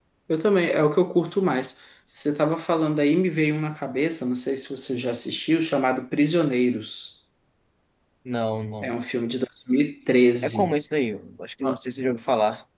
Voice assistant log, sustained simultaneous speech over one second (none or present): none